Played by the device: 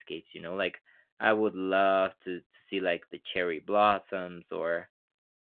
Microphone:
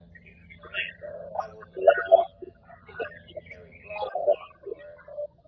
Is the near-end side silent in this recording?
Yes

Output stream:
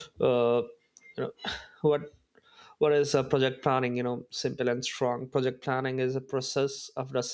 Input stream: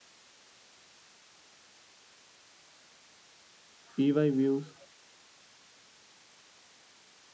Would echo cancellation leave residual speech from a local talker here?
Yes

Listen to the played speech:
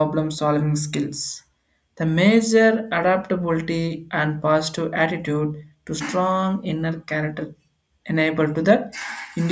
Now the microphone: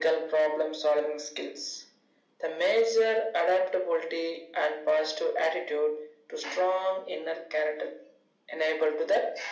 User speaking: No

